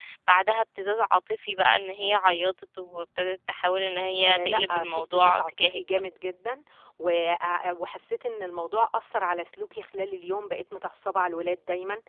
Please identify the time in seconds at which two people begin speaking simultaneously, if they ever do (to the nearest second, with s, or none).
4 s